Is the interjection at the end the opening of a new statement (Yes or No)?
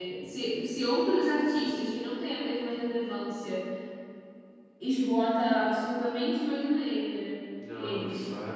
Yes